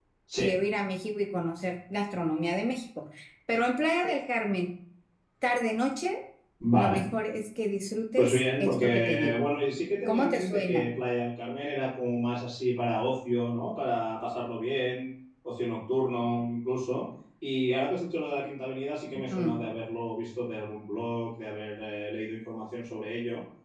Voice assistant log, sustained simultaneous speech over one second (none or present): present